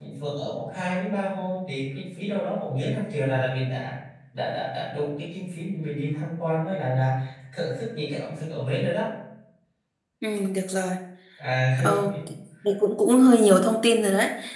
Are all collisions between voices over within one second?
Yes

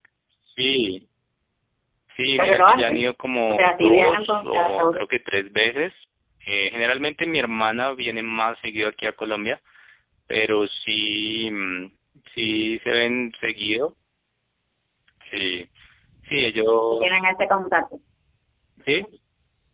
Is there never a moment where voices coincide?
No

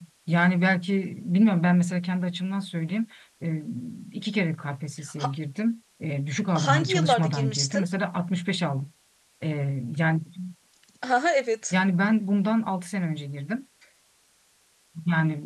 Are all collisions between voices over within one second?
No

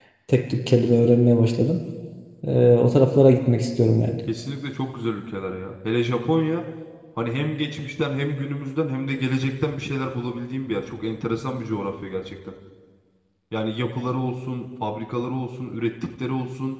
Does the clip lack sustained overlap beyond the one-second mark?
Yes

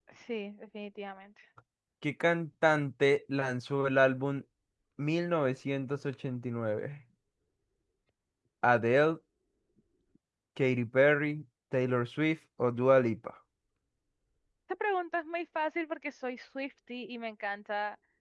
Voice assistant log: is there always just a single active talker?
Yes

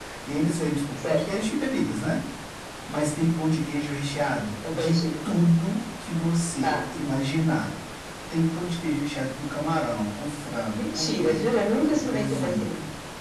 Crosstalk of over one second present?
Yes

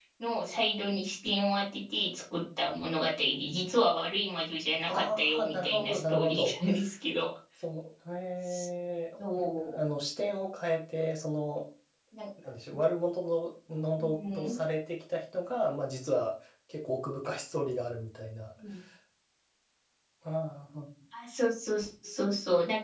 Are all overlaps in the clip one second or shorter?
No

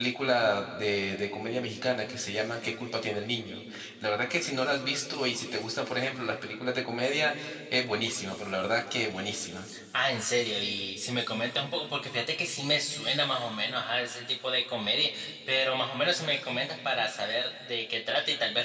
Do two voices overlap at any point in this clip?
No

